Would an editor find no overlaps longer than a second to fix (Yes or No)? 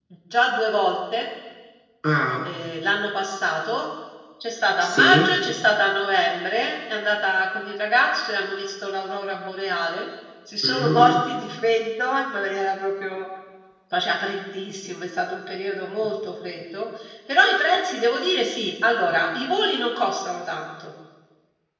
Yes